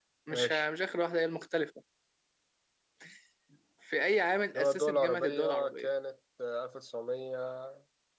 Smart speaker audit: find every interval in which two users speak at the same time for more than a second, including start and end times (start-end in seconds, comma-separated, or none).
4.5-5.9